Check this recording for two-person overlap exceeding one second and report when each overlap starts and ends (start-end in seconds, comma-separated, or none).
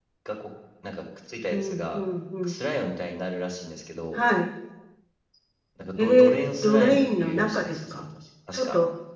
6.0-8.0